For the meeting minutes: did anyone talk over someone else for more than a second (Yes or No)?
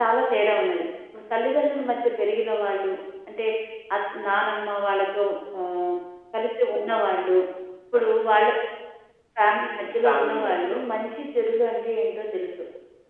Yes